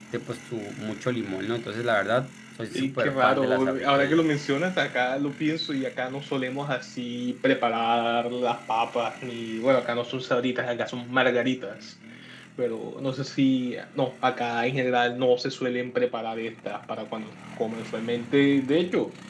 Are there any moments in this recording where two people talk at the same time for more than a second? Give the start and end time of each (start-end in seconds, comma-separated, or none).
2.8-4.3